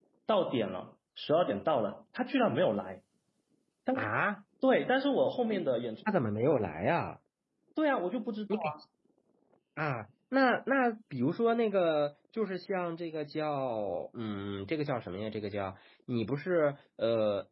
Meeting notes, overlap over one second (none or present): none